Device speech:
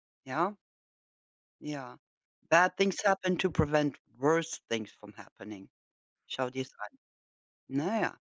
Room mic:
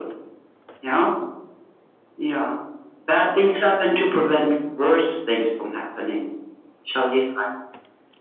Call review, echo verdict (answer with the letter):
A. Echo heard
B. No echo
A